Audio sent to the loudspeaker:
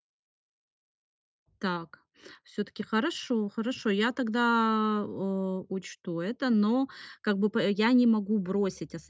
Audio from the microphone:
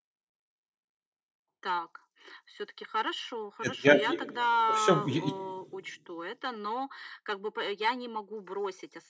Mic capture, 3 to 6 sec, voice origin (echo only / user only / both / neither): both